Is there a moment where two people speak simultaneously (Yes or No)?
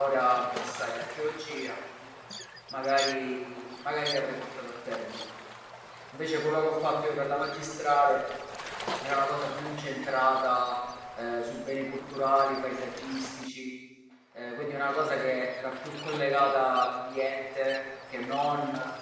No